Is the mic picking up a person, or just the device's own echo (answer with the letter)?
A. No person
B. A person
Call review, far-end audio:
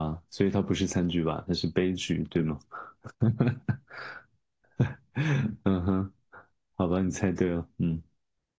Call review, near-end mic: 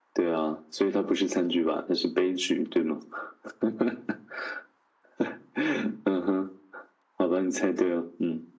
A